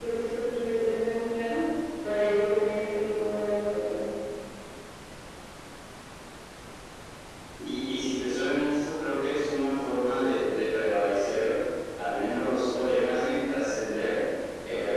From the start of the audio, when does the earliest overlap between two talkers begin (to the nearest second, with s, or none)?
none